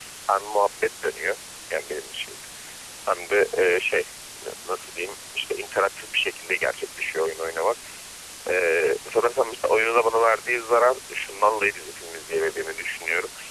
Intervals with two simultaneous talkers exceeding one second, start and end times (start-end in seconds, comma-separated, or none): none